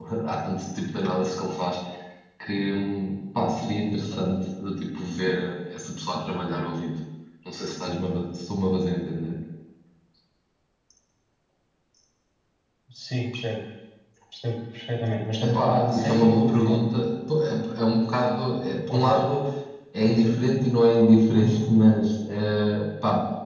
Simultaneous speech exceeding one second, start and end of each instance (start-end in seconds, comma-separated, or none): 15.3-16.8